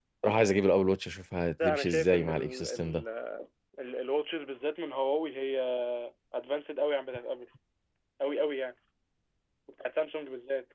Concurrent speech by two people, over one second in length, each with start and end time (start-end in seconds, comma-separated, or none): 1.6-3.0